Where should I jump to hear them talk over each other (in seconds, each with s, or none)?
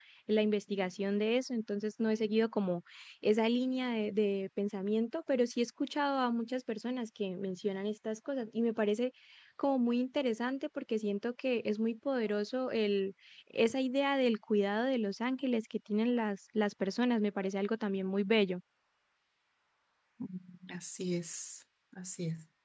none